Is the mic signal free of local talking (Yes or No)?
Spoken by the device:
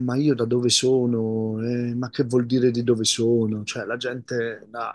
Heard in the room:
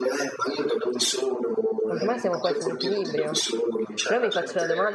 No